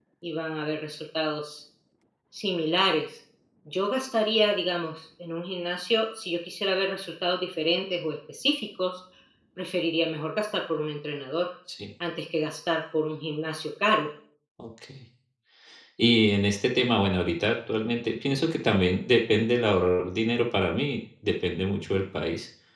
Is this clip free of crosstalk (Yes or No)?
Yes